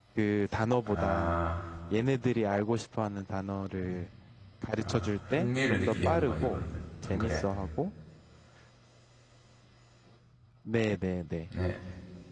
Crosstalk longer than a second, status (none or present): present